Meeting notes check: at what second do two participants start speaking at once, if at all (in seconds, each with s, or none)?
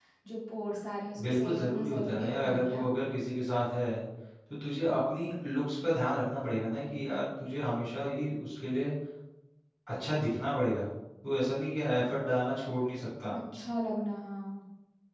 1.2 s